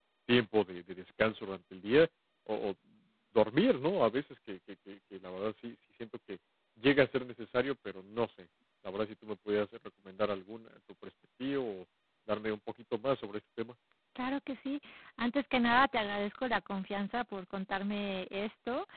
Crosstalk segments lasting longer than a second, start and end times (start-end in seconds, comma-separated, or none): none